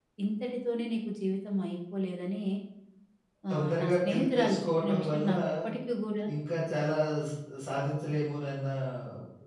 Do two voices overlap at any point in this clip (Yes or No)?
Yes